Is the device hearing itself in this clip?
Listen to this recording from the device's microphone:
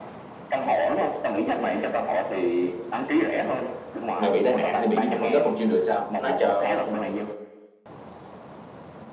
Yes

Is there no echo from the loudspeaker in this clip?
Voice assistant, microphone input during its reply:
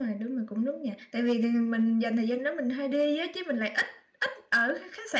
Yes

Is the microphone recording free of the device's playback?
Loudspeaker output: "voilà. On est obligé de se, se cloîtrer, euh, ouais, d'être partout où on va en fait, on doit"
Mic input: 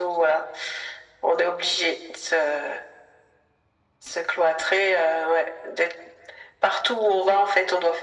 No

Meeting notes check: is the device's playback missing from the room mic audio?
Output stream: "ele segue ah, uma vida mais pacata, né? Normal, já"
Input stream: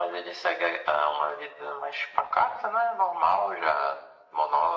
No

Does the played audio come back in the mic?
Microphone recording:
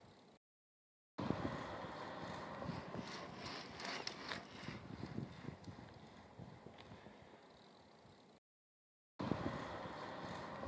No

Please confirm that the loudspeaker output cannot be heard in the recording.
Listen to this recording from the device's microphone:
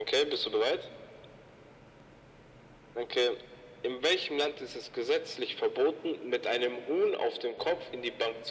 No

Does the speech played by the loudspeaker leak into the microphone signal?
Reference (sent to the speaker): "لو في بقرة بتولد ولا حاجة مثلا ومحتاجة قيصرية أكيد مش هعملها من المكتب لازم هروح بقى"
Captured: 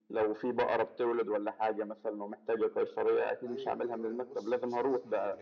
Yes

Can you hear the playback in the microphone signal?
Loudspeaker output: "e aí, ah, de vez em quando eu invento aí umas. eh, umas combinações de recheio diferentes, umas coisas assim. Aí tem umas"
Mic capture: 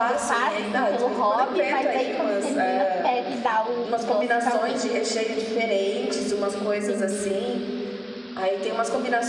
Yes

